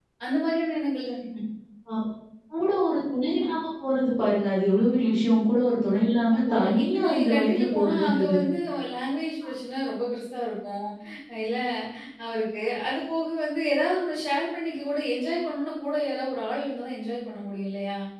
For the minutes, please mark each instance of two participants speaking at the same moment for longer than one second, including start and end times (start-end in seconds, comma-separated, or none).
6.5-8.4